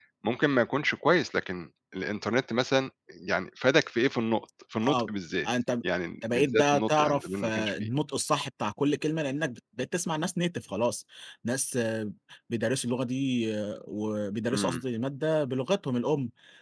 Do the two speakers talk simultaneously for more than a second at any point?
Yes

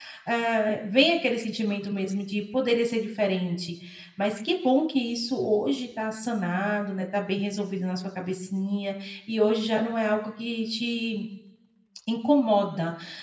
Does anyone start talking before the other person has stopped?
No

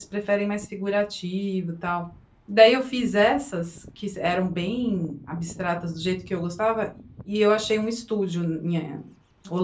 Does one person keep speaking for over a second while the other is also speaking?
No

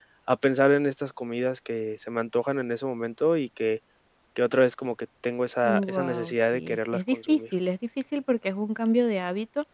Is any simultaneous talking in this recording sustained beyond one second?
Yes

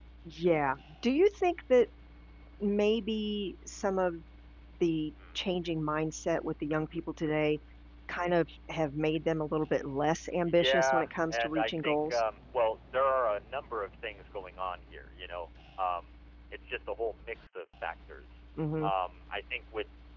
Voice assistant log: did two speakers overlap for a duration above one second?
Yes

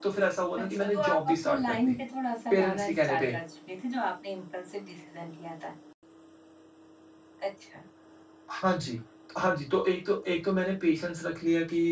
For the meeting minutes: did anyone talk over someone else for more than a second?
Yes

